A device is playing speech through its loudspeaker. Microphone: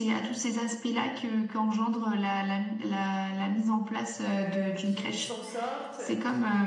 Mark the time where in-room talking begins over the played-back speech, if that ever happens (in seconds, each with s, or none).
4.3 s